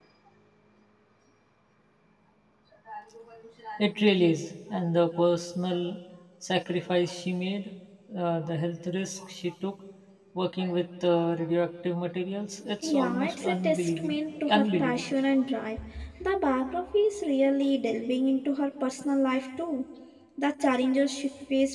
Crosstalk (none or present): present